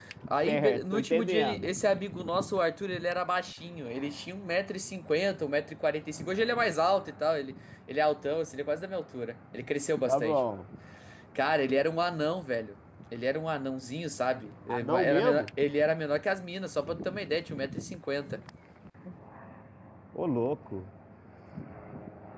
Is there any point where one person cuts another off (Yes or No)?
Yes